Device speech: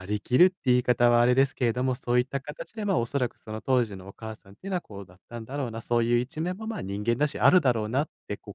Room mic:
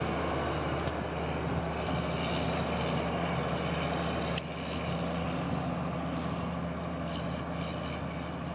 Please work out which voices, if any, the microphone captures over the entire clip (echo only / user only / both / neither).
neither